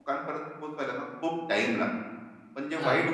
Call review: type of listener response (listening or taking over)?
listening